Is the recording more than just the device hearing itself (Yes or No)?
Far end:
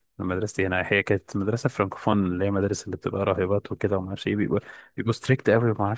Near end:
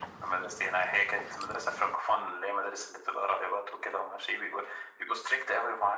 No